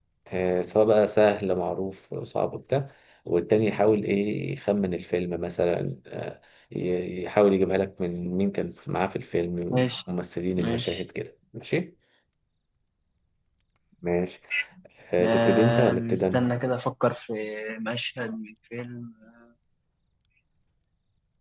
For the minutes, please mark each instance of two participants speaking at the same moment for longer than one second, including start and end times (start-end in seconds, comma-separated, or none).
15.2-16.4